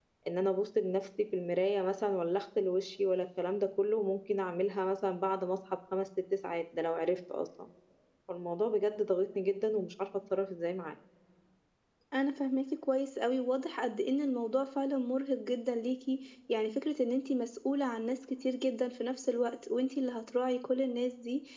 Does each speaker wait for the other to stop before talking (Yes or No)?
Yes